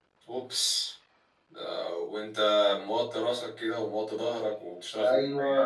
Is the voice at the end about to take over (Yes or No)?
Yes